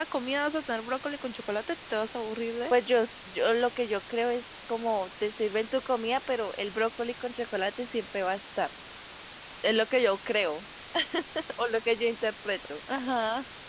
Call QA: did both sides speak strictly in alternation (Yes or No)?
Yes